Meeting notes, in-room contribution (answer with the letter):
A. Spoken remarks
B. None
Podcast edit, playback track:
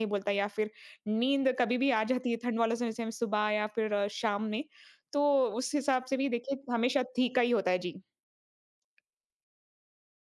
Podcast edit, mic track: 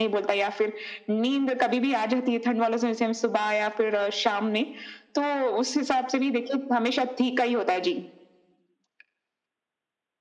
B